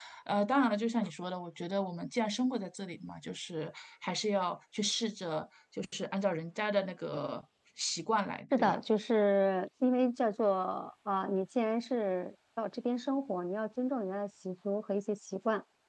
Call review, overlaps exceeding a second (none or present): none